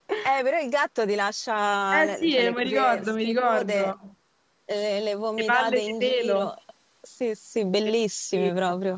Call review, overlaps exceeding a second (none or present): present